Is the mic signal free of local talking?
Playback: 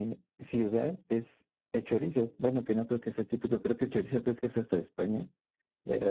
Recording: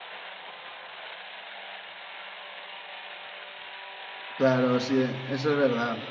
No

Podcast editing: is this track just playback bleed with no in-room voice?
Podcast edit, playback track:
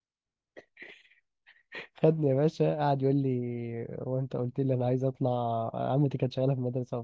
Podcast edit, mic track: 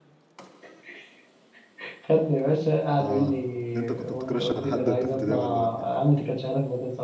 No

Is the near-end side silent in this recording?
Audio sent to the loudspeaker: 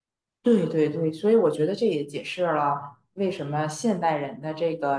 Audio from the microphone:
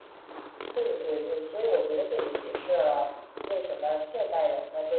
Yes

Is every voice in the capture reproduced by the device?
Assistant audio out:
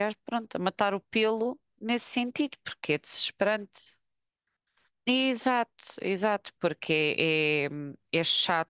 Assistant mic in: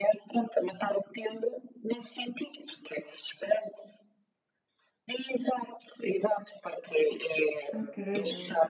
No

